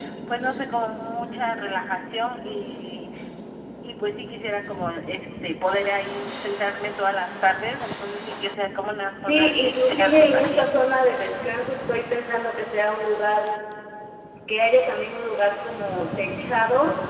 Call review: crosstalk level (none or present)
present